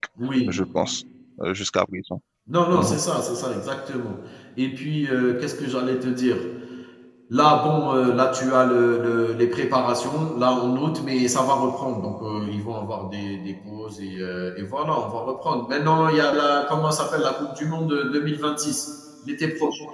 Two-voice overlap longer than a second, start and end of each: none

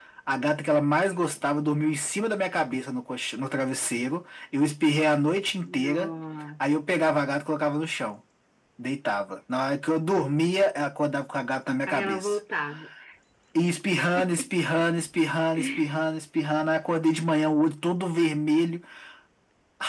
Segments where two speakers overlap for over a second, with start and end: none

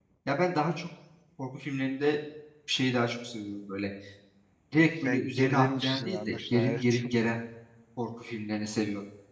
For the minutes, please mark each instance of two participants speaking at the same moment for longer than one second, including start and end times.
5.0-7.0

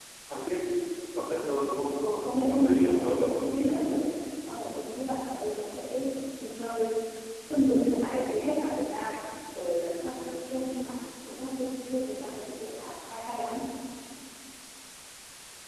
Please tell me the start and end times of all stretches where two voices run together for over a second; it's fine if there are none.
2.5-3.7

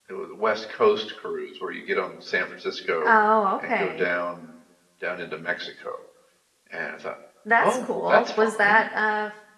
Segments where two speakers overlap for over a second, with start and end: 7.6-8.8

